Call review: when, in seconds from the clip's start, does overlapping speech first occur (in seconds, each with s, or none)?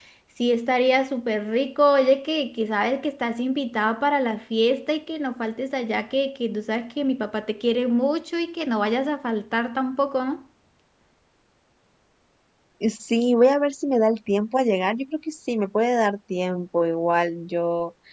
none